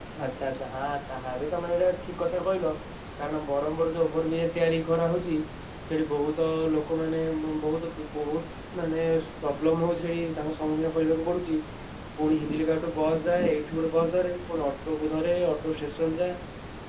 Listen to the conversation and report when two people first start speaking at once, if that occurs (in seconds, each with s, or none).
none